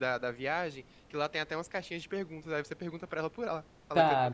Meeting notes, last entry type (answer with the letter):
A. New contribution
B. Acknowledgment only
A